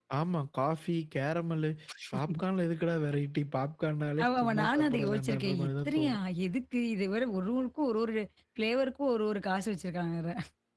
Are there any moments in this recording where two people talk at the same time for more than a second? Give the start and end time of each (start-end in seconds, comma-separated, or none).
4.2-6.2